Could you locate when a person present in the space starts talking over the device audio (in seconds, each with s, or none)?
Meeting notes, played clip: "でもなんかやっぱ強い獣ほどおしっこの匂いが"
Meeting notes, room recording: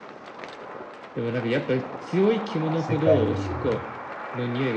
2.8 s